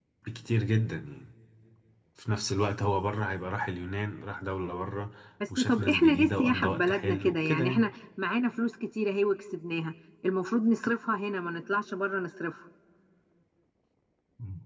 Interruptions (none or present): present